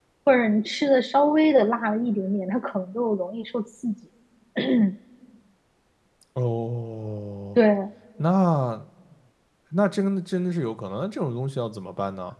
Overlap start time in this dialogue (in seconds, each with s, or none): none